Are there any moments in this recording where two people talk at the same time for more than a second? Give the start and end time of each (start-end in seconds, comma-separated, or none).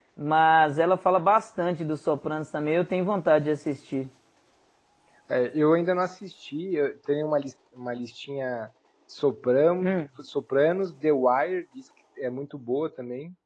none